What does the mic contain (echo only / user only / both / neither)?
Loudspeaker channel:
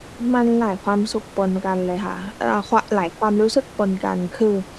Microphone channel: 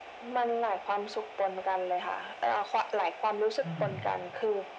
both